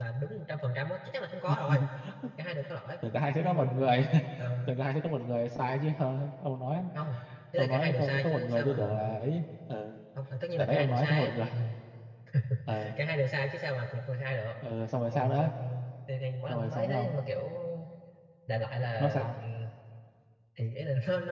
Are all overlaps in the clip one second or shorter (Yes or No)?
No